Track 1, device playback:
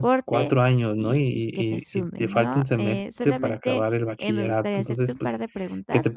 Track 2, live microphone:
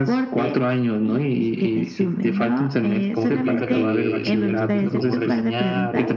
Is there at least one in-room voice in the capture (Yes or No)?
Yes